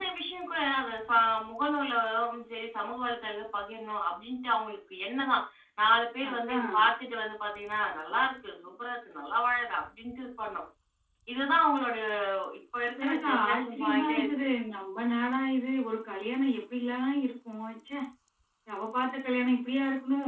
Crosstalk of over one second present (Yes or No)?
Yes